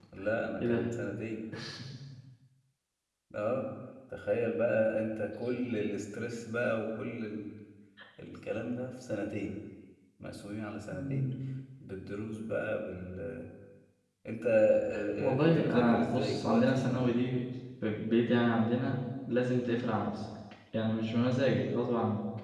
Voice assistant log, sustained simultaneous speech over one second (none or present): present